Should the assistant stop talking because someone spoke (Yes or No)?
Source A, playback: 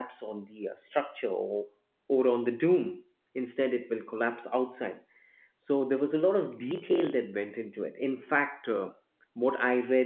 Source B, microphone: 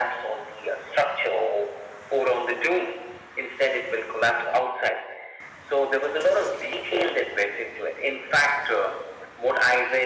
No